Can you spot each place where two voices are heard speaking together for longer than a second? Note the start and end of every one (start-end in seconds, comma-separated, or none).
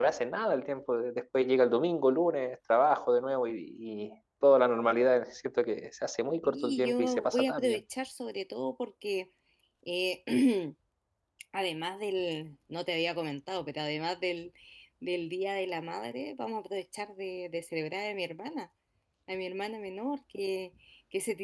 6.4-7.8